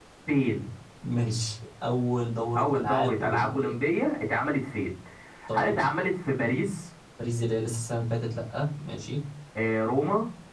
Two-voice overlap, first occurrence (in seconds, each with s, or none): 2.6 s